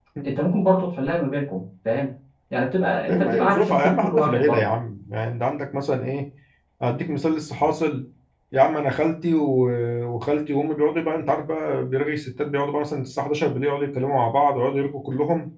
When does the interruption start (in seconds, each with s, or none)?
3.1 s